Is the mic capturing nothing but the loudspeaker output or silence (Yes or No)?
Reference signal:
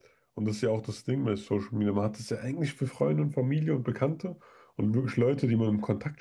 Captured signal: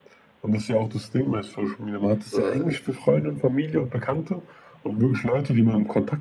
No